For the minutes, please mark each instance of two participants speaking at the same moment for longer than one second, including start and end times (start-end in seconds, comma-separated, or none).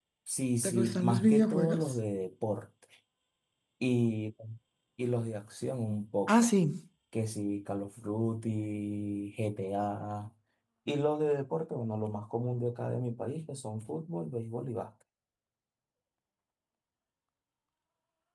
0.6-1.9